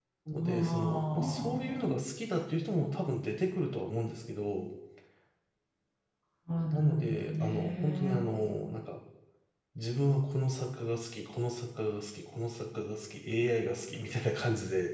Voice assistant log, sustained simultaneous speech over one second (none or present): present